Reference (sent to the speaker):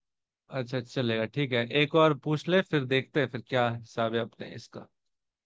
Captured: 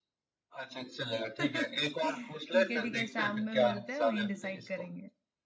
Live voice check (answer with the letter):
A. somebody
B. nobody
A